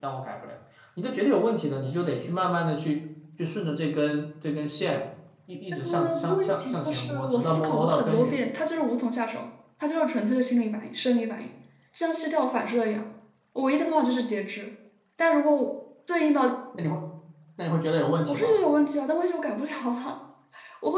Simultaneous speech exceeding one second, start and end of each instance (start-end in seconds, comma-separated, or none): 5.9-8.3